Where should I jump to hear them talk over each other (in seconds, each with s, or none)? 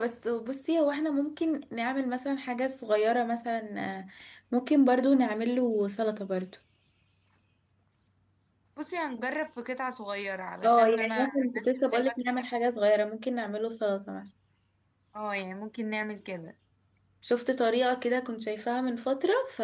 10.6 s